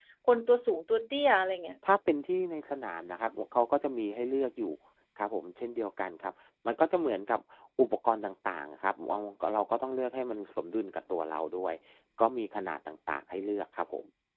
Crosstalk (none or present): none